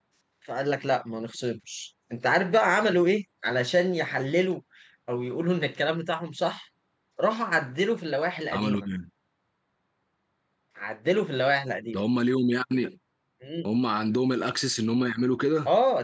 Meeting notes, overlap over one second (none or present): none